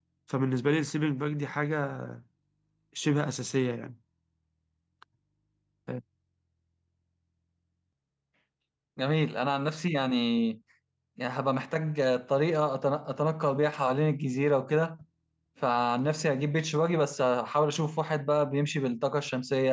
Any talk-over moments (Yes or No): No